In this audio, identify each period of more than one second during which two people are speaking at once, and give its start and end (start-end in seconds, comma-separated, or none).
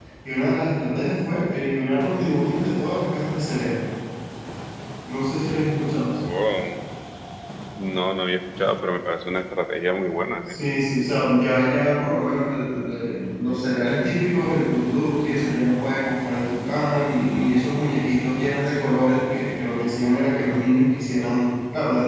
none